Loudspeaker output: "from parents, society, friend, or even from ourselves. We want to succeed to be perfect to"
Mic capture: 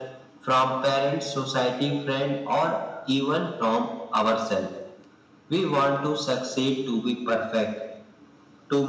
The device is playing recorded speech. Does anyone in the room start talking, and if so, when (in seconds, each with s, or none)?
none